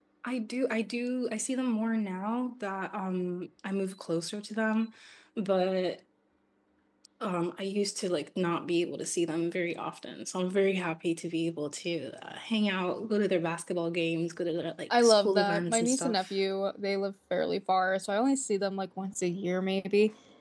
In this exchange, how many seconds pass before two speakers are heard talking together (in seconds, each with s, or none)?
14.9 s